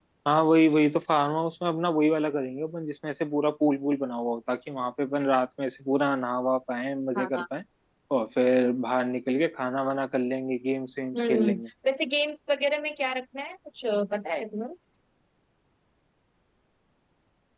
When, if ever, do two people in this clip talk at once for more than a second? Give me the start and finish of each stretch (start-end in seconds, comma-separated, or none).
none